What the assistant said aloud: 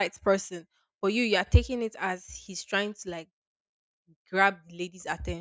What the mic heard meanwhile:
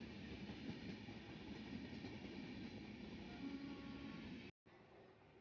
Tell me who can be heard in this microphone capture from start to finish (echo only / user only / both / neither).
neither